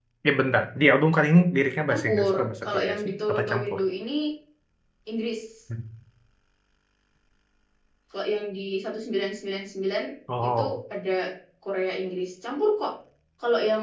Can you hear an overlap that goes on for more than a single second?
Yes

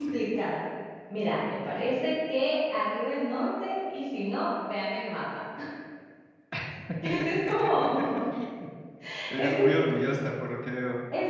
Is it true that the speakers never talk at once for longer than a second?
Yes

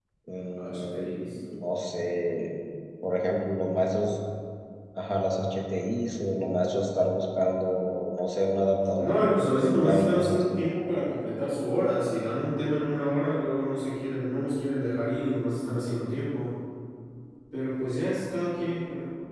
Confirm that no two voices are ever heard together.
No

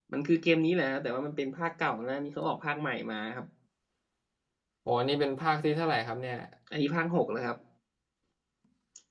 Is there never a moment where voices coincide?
Yes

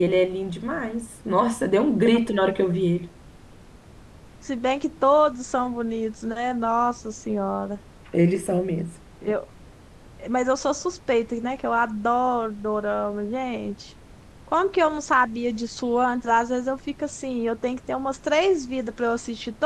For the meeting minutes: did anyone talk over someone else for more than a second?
No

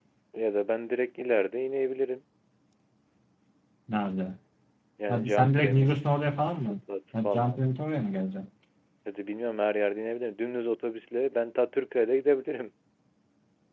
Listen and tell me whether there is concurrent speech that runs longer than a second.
Yes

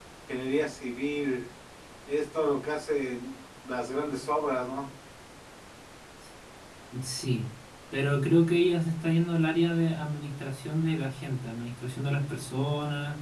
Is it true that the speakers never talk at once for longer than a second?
Yes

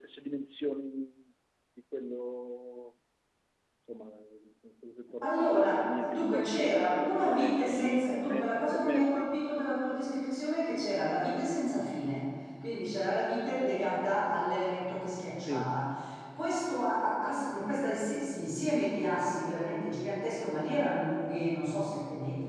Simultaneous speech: Yes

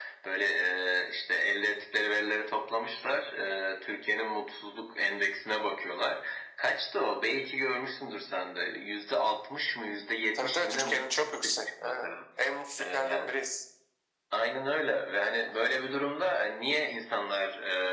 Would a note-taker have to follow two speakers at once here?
Yes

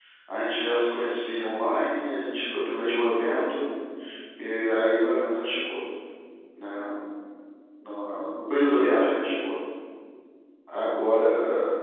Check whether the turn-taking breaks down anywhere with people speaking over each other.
No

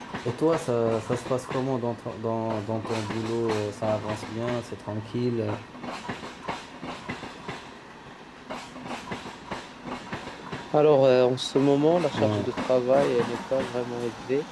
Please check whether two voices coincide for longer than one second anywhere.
No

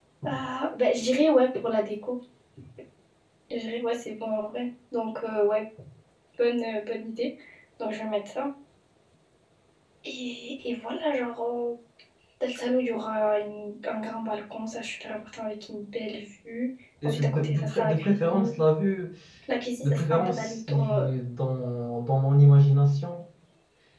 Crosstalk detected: Yes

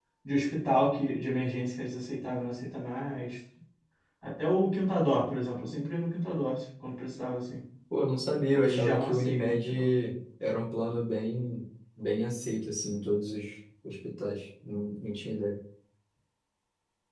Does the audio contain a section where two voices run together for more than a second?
Yes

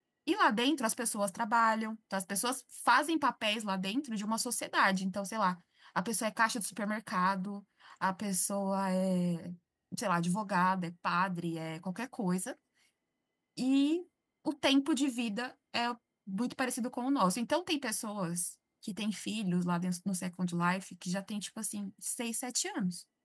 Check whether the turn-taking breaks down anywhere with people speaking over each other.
No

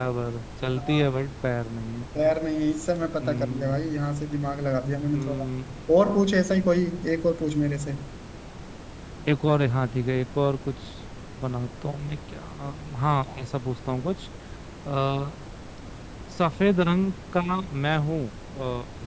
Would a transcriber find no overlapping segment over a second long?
Yes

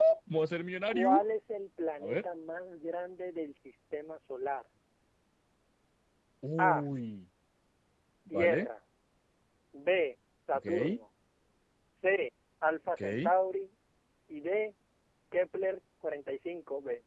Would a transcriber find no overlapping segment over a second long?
Yes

